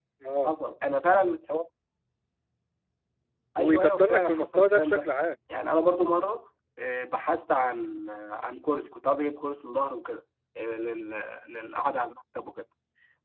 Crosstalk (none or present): present